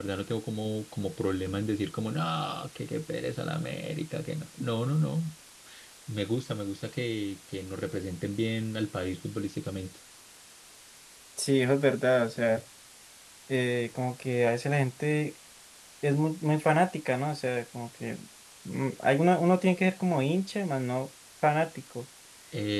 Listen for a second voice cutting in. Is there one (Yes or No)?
No